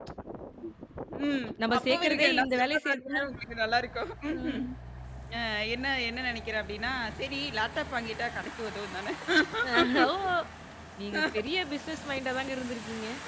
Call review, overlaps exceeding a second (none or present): present